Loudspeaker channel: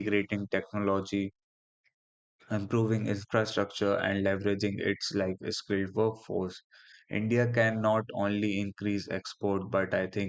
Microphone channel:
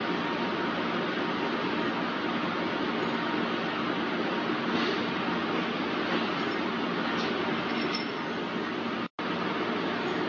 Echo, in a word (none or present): none